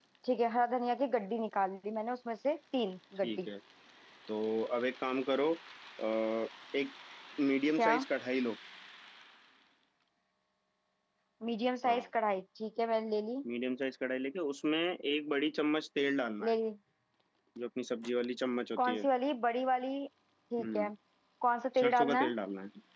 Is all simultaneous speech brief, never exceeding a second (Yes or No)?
Yes